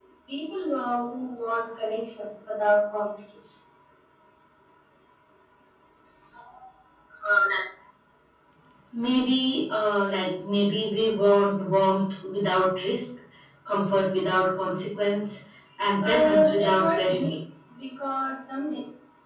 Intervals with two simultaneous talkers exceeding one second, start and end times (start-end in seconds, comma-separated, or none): 16.0-17.3